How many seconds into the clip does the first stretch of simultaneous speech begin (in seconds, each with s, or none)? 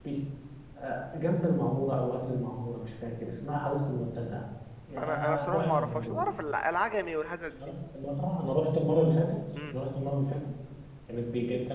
5.0 s